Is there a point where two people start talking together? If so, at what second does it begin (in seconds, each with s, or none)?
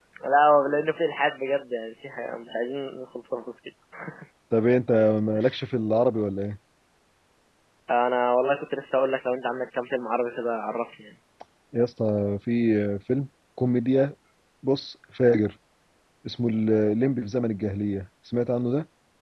none